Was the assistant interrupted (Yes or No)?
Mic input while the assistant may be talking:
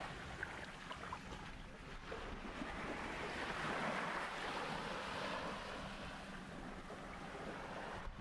No